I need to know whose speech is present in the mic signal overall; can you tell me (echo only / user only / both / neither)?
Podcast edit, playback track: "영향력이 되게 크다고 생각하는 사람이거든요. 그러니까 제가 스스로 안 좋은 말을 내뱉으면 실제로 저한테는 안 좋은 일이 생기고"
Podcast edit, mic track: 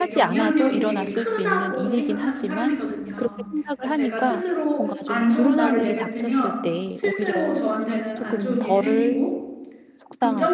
both